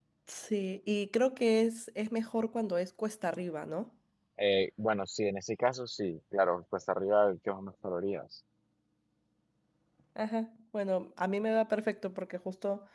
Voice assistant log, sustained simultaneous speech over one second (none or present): none